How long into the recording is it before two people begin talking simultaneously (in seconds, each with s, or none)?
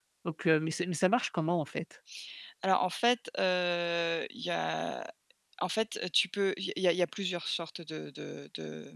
none